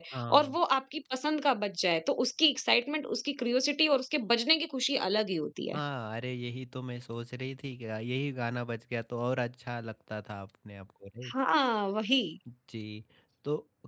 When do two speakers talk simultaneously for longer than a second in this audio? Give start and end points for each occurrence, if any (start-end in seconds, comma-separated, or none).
none